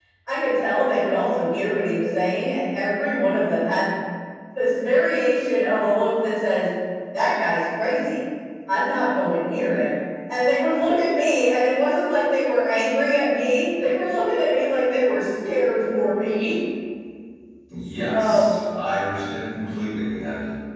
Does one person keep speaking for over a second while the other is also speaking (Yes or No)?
No